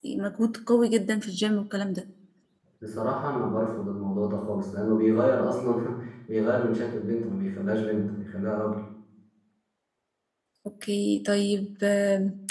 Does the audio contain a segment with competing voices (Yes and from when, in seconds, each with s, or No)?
No